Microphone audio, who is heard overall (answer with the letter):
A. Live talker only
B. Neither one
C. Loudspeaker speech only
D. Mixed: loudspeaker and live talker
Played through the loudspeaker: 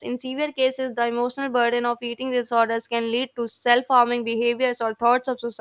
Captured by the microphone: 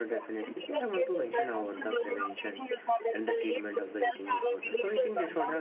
D